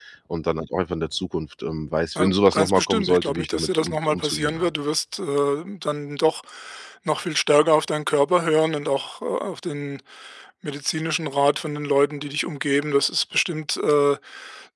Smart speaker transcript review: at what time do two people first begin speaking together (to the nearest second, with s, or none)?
2 s